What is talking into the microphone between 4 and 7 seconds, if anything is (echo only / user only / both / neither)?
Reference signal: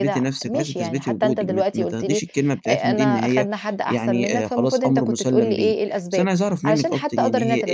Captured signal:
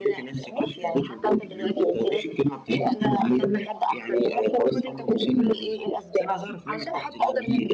echo only